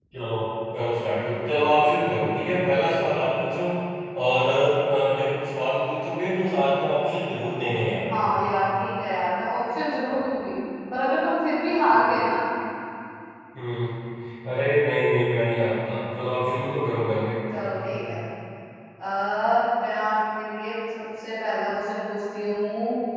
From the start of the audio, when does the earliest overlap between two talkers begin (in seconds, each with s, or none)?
none